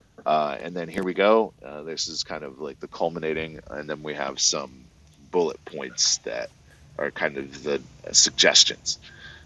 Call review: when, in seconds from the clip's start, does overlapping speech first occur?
none

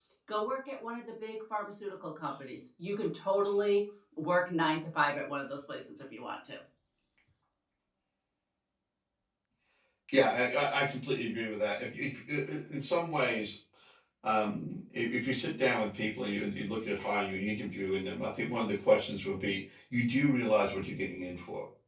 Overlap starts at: none

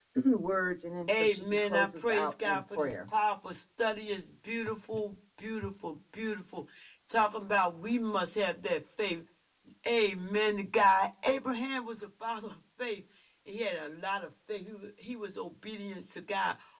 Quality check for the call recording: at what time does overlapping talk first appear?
1 s

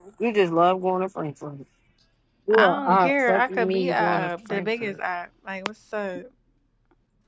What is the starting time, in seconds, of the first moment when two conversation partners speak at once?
3 s

